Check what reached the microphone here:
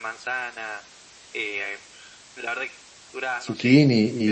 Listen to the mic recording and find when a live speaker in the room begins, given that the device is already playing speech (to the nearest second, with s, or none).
3 s